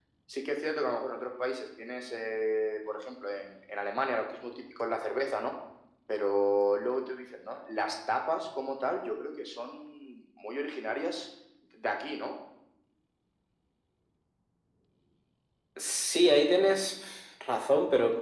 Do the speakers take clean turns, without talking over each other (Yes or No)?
Yes